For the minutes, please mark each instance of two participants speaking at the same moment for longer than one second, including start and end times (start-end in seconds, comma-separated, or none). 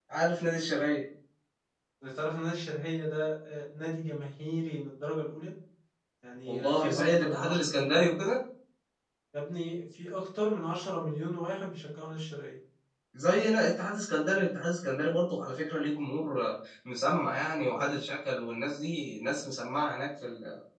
6.5-8.1